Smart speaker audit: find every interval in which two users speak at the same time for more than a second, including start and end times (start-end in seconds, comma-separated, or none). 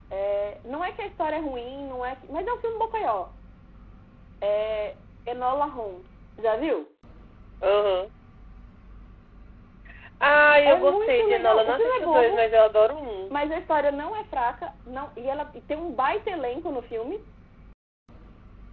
10.6-12.4